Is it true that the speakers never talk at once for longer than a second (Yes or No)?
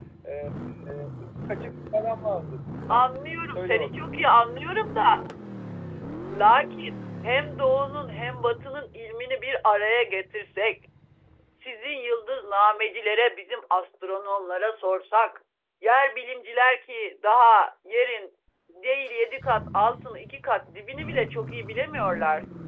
Yes